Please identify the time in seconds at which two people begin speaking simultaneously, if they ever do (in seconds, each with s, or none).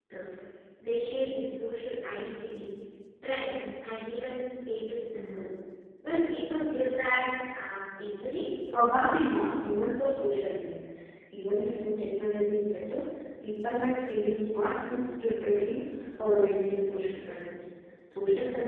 none